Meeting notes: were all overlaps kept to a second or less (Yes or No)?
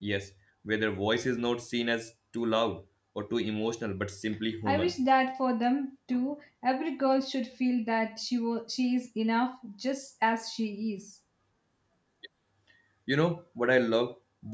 Yes